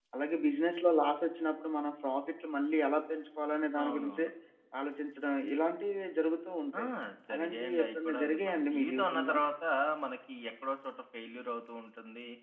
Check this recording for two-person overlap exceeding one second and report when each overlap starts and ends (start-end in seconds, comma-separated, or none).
7.3-9.3